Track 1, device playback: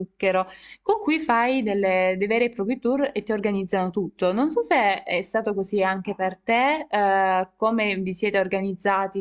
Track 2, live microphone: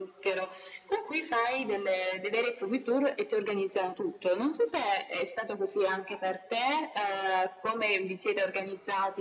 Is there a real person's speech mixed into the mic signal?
No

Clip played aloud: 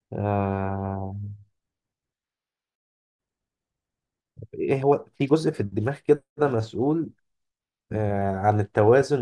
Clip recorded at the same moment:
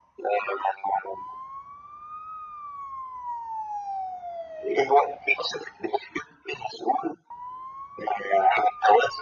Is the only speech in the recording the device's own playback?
Yes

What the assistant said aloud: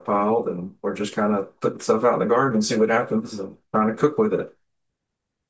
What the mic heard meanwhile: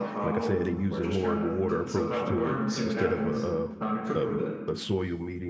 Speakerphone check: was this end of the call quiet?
No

